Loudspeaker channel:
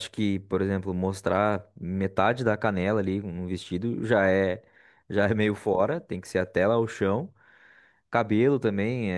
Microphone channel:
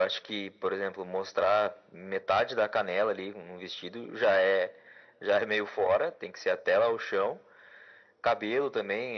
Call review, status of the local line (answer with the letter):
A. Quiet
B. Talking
A